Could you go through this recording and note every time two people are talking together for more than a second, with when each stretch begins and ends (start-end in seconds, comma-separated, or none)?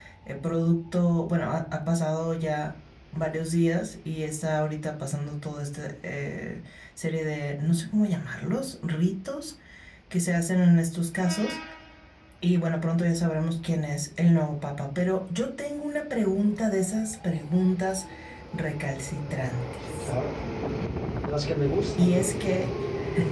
none